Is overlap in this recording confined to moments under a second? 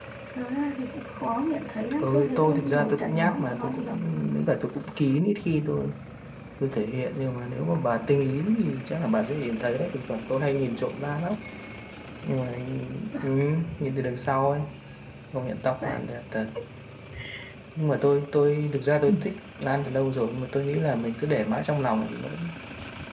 No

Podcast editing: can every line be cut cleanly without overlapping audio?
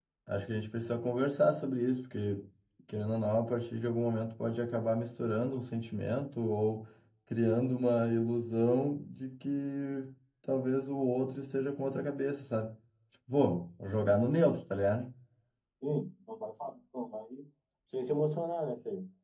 Yes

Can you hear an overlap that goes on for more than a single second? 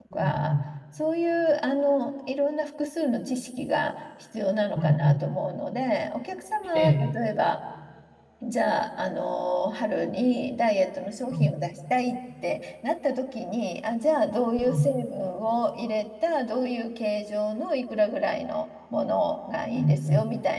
No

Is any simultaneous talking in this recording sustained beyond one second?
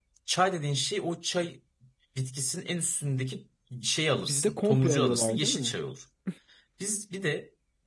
Yes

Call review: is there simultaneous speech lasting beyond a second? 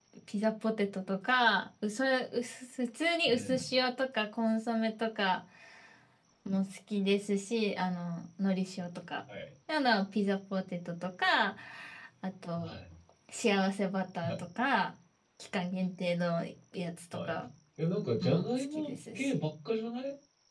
Yes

